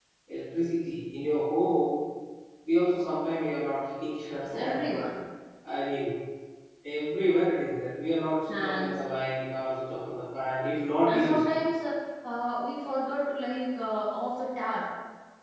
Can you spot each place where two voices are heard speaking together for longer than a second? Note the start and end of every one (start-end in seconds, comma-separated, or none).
none